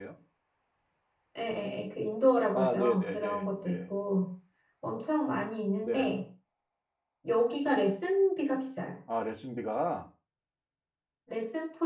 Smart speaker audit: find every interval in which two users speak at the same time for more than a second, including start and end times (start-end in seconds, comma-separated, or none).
2.5-3.8